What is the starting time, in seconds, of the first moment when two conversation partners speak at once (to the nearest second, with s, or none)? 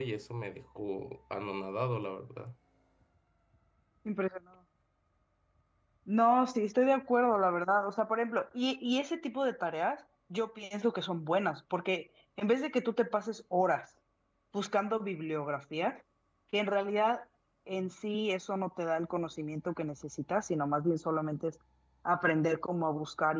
none